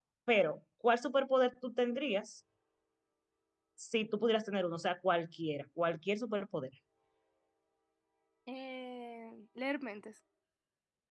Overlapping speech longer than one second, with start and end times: none

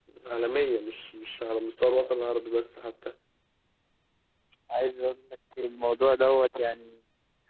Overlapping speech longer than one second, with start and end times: none

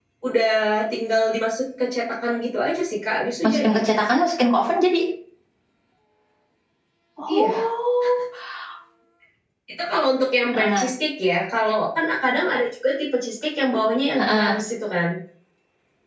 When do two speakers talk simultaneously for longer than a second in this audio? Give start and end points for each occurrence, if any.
none

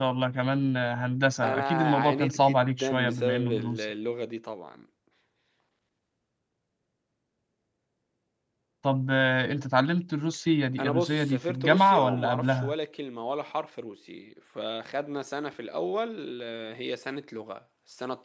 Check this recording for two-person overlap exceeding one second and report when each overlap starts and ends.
1.4-3.9, 10.8-12.7

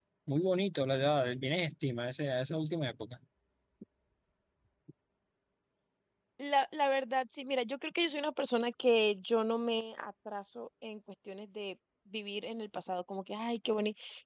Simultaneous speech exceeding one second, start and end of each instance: none

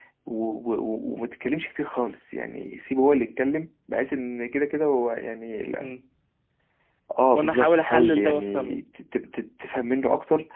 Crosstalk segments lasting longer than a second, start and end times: 7.3-8.8

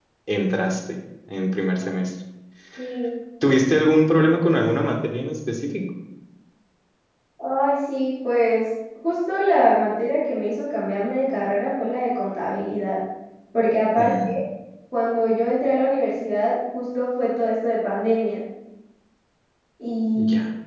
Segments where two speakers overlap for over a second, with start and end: none

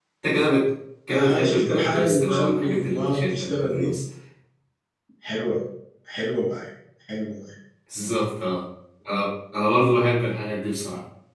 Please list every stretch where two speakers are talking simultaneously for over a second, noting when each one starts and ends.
1.1-3.9

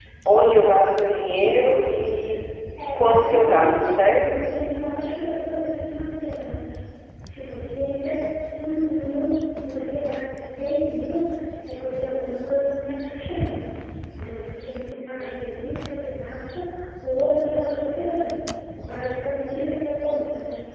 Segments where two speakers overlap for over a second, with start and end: 2.9-4.2

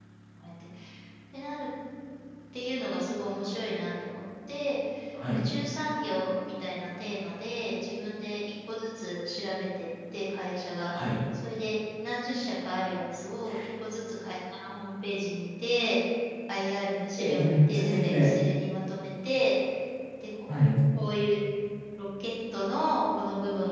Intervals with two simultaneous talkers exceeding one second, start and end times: 17.2-18.4

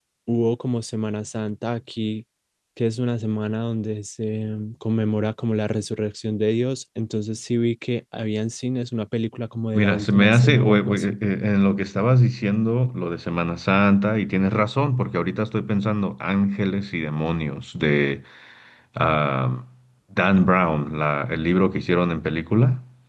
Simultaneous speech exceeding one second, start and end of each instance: 9.7-11.2

